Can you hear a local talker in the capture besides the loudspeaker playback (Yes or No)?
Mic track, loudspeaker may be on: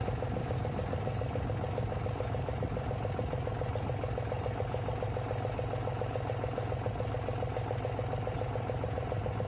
No